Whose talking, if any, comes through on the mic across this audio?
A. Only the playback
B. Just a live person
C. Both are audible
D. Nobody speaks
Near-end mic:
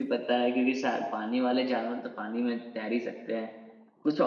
B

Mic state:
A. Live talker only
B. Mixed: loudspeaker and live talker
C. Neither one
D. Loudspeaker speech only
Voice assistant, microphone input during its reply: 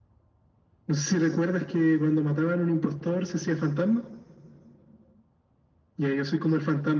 D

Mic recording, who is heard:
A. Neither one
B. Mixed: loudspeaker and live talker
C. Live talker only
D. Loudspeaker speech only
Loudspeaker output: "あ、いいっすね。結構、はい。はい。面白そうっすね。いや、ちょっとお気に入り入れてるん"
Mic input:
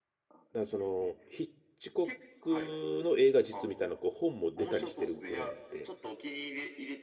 B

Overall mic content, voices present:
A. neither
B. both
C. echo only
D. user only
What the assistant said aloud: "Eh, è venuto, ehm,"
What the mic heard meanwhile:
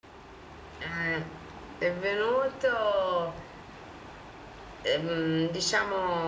C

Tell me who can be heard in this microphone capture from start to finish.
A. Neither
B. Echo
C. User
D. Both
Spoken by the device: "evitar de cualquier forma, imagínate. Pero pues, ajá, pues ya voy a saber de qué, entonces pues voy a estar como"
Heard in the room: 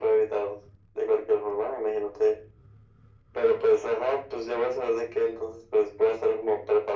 B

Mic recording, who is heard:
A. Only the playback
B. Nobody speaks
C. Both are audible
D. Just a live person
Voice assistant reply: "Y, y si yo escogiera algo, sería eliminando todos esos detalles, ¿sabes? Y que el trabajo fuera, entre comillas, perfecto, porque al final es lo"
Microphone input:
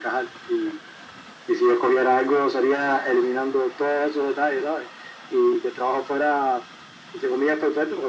A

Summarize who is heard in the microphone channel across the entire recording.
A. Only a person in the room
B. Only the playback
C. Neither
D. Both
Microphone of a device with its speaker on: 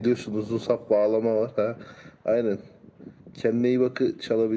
B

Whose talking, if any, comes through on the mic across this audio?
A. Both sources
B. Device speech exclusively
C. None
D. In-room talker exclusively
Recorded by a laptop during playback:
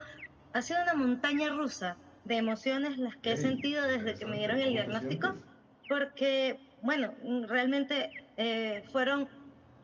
A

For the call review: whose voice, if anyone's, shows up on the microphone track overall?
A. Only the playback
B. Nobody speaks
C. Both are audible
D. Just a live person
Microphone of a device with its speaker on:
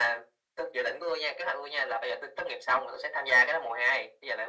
A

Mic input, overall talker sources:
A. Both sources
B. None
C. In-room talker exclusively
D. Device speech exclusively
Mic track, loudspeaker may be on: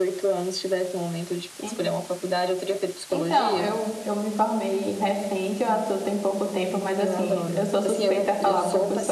A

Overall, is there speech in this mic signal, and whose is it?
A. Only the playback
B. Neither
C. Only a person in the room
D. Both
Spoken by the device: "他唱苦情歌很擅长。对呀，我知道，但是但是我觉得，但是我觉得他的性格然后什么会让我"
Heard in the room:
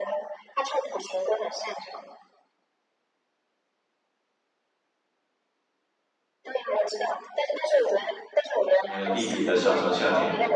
D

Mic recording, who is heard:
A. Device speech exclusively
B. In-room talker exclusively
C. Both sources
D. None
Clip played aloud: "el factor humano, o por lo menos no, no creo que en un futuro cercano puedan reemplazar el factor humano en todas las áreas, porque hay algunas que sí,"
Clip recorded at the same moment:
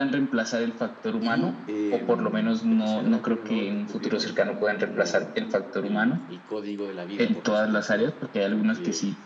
C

